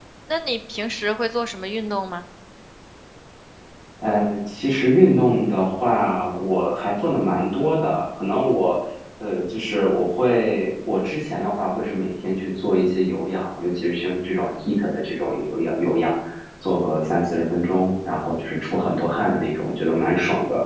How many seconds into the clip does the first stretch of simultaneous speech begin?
none

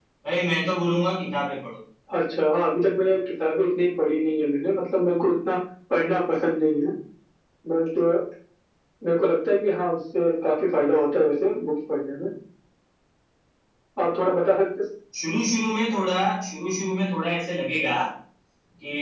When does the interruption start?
none

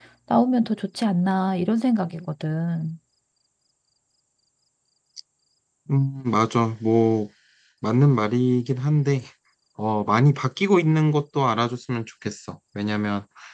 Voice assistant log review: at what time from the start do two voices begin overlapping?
none

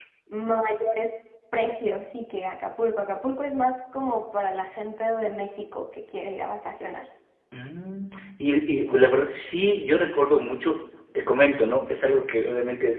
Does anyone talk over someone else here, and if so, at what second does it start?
none

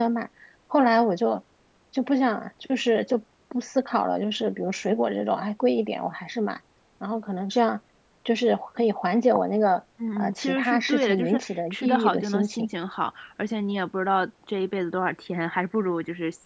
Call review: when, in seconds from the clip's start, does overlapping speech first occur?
10.0 s

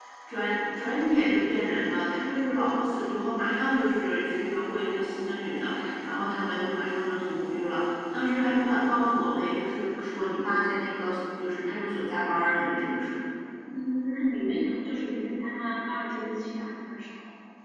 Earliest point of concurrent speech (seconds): none

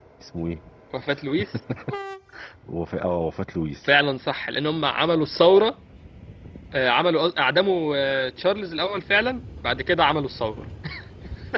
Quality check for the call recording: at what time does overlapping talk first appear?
none

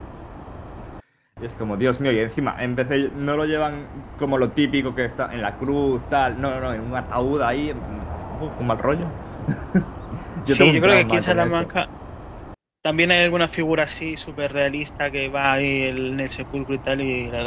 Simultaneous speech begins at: 10.5 s

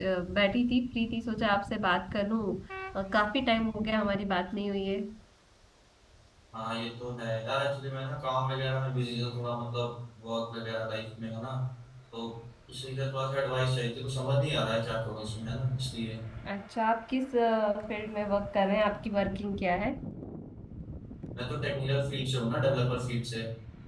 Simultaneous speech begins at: none

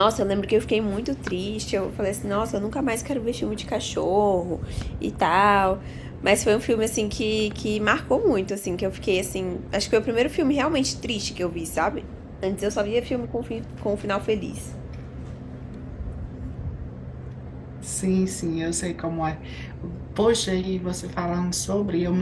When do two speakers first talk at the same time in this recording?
none

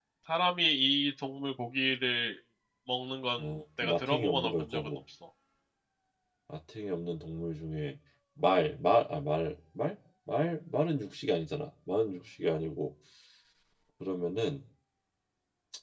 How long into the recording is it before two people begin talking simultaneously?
3.4 s

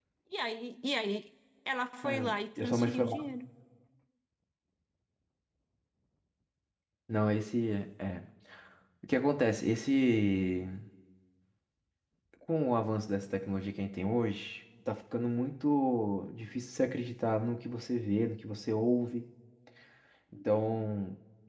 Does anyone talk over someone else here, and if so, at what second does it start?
2.0 s

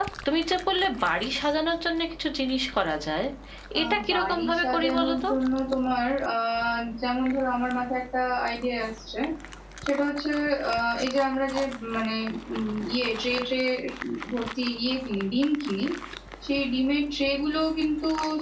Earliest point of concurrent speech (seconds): 3.8 s

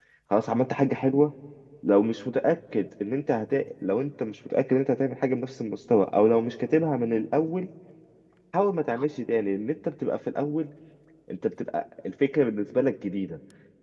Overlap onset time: none

